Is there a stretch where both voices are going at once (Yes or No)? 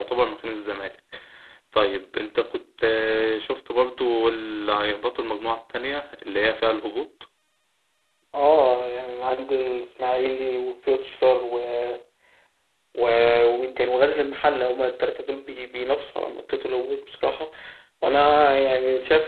No